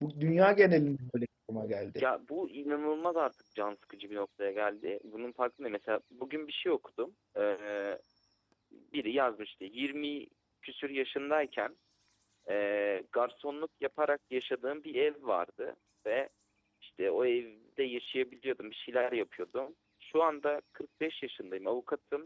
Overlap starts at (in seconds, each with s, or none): none